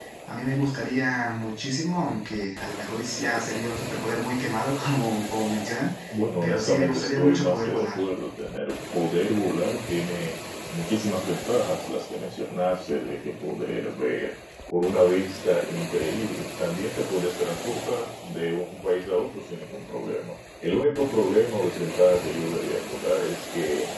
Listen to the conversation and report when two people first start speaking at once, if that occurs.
6.4 s

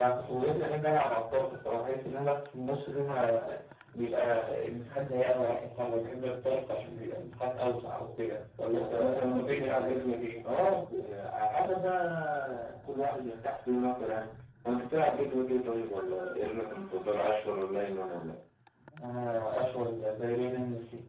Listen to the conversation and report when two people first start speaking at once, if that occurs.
8.7 s

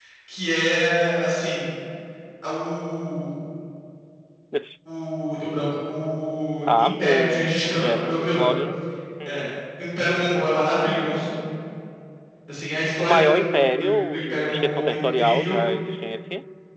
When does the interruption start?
6.7 s

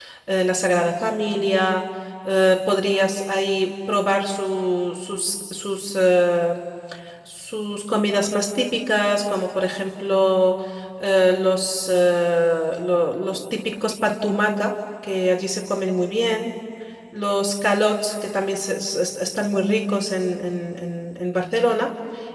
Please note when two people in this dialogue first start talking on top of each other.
none

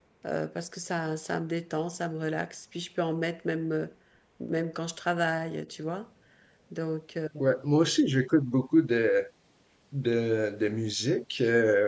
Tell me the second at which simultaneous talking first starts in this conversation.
none

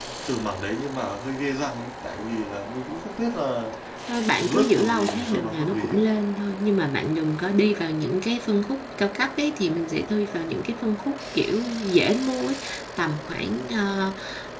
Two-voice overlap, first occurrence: 4.3 s

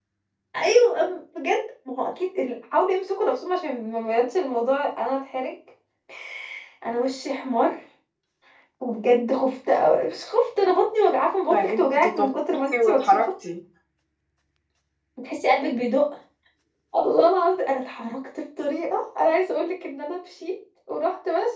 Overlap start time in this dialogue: 11.5 s

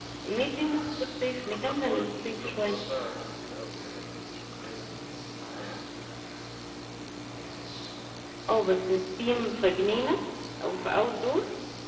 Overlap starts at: 1.5 s

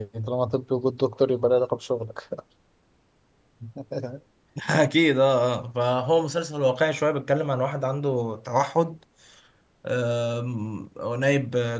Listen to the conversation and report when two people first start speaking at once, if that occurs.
none

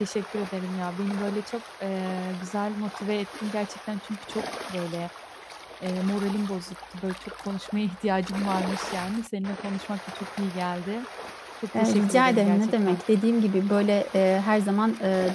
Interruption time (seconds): 11.8 s

